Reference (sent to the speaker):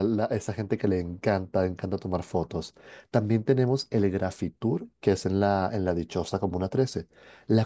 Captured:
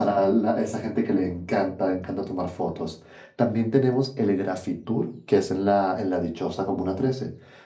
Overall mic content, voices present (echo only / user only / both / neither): echo only